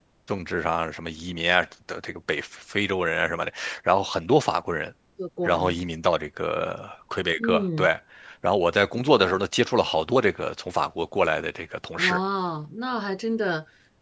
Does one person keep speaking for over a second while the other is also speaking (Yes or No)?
No